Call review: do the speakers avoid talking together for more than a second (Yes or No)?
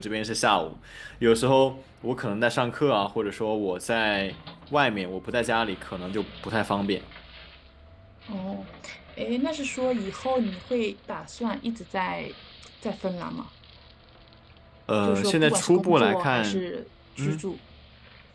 No